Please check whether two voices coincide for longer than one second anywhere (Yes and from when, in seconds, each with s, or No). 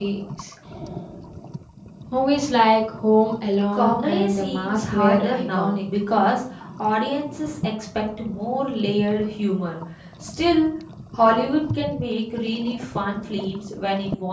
Yes, from 3.7 s